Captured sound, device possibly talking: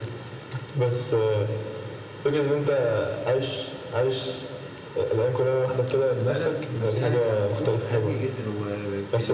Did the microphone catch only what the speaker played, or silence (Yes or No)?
No